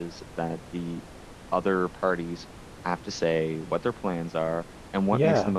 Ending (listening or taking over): listening